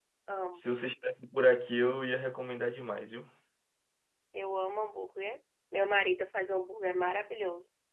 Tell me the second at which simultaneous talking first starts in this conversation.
none

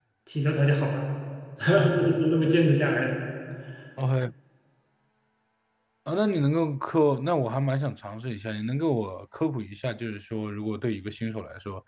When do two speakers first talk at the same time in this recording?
none

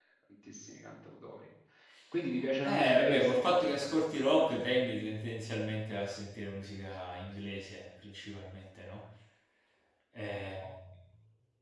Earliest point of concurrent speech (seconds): 2.6 s

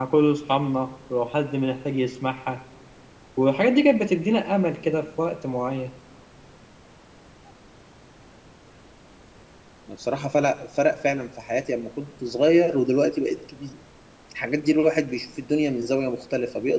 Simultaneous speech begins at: none

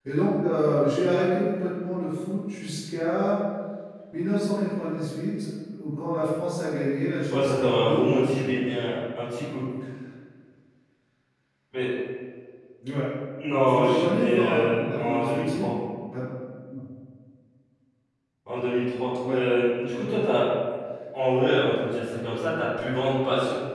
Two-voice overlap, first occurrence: 7.3 s

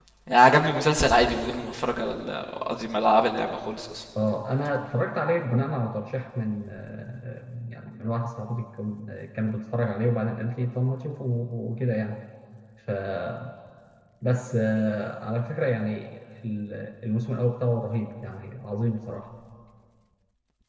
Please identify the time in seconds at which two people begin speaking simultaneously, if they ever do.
none

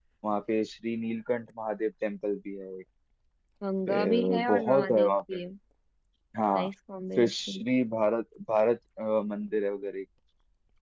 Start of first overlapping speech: 3.9 s

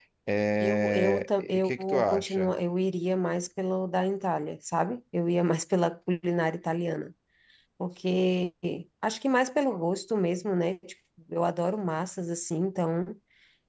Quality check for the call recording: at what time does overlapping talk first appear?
0.6 s

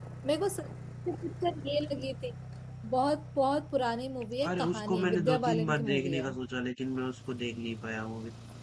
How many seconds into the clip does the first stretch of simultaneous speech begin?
4.4 s

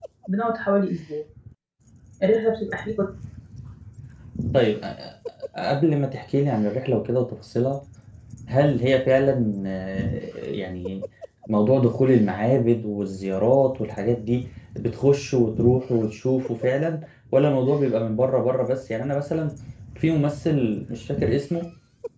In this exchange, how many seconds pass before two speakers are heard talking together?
none

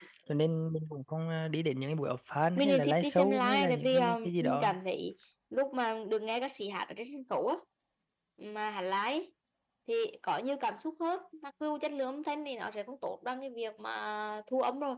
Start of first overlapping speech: 2.6 s

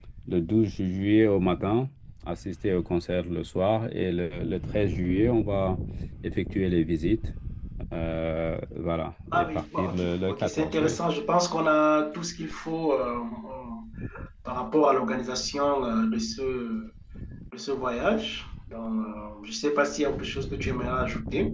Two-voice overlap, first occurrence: 9.3 s

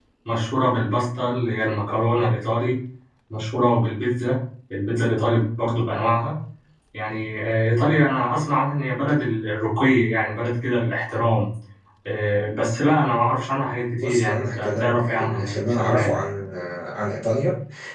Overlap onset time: 14.0 s

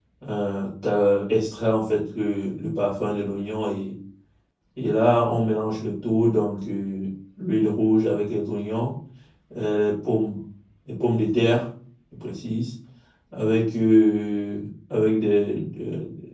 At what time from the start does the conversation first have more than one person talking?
none

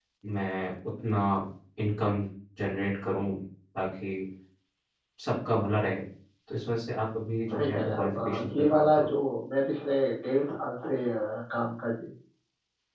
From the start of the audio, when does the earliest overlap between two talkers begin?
7.5 s

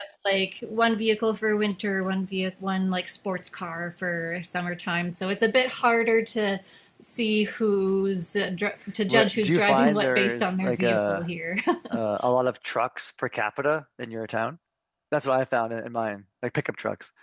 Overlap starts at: 9.1 s

